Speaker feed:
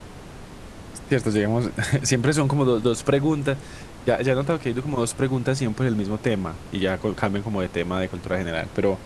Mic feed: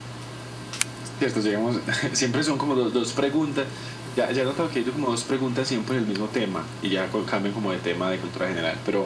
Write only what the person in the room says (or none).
none